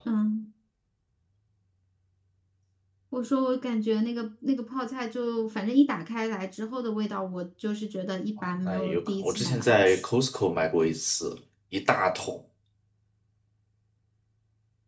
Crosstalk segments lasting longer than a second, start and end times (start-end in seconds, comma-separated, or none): 8.6-10.0